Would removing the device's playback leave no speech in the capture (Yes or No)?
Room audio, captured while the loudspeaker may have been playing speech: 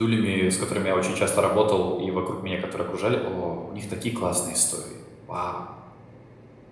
No